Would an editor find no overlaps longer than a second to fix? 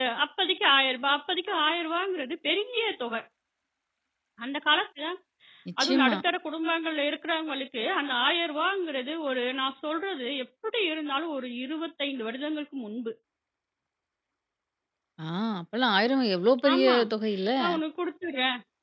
Yes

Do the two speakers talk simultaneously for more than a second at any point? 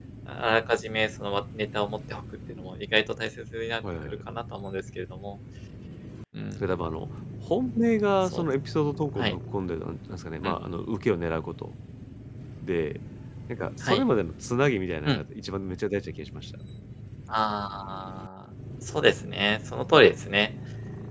No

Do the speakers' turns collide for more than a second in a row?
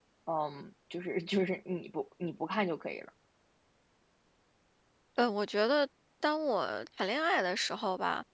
No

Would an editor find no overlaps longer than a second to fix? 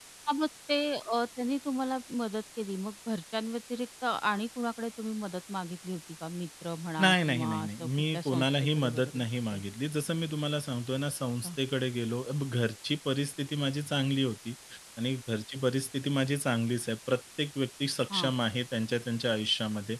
No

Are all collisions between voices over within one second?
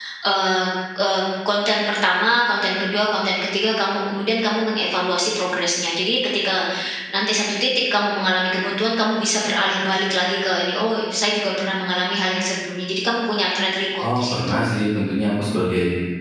Yes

